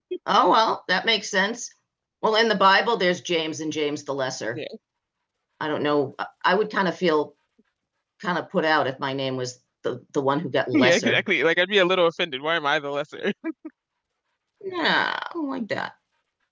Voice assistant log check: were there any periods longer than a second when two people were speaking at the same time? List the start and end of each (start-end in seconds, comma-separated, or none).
none